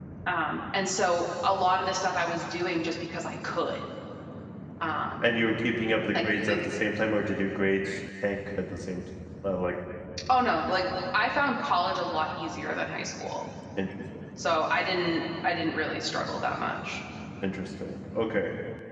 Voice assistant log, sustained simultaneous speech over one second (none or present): none